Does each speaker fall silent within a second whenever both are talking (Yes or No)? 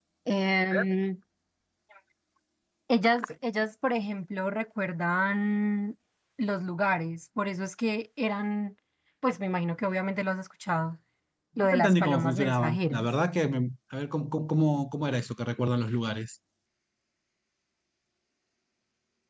No